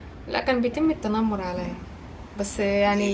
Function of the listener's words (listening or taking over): listening